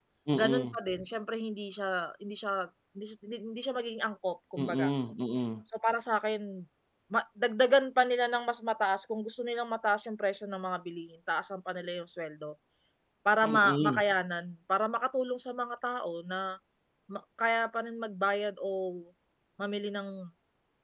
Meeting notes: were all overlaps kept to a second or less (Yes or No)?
Yes